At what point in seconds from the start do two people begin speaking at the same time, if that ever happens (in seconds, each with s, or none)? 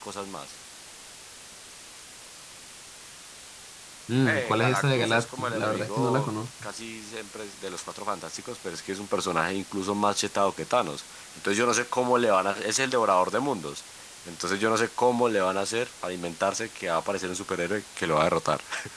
4.2 s